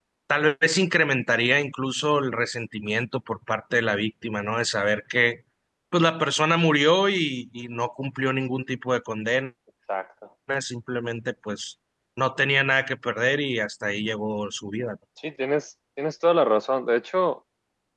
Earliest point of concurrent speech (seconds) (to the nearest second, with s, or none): none